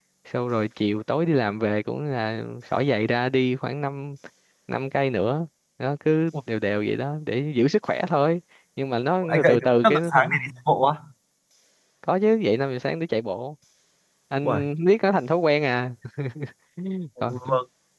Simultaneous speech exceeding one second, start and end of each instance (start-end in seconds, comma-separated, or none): 9.2-10.5